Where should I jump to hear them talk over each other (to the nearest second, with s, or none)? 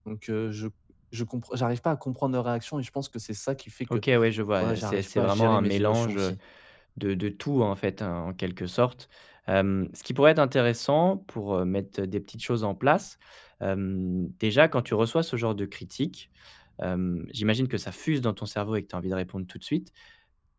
5 s